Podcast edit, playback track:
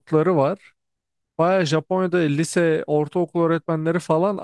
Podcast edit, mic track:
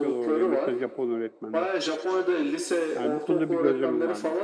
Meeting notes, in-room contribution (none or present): present